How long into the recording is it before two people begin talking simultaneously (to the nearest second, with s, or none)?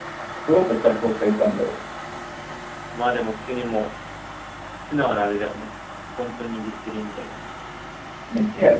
none